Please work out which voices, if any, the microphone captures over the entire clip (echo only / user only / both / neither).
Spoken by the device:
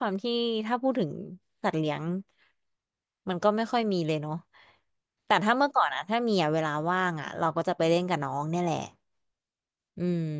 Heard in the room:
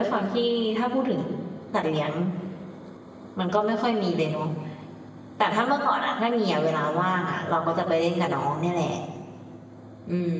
echo only